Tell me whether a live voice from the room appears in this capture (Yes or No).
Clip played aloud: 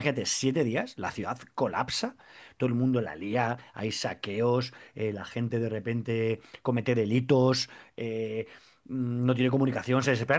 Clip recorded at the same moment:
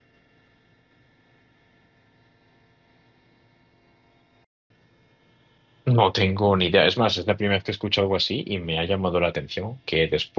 Yes